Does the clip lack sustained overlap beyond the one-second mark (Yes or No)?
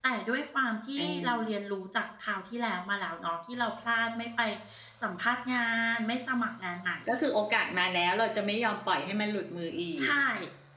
Yes